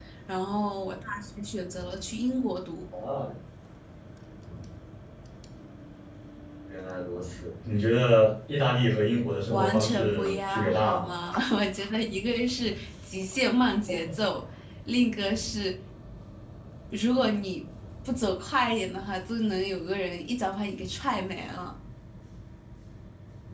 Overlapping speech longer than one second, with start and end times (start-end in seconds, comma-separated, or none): 9.5-11.1